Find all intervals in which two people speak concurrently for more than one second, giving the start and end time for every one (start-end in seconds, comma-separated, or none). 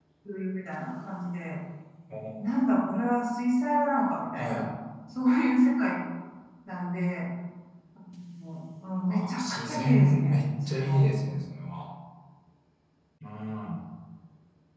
9.1-11.0